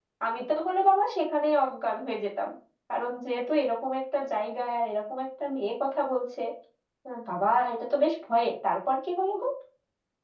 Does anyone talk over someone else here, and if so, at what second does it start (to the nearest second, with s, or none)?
none